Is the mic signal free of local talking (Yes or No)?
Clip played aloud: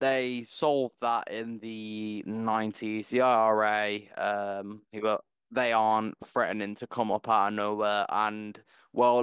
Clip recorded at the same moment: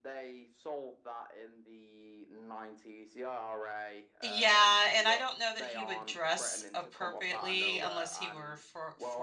No